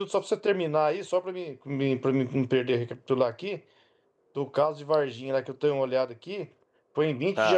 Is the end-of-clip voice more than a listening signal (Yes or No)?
No